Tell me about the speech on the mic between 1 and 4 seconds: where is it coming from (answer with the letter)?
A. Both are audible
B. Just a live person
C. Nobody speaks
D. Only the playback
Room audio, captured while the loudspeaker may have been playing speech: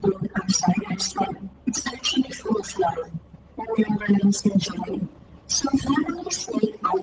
D